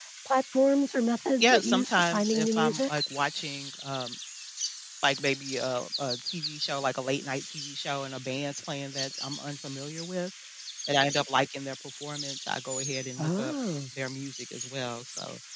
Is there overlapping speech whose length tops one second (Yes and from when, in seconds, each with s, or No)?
Yes, from 1.4 s